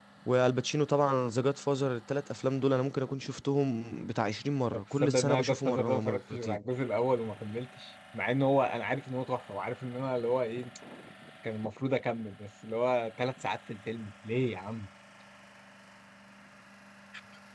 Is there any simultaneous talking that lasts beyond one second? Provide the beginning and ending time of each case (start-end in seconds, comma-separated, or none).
4.7-6.6